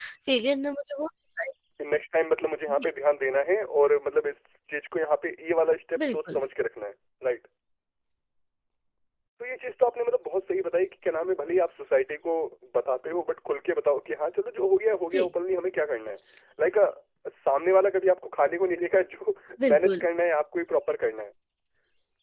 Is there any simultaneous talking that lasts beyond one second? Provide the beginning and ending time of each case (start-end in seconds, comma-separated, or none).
none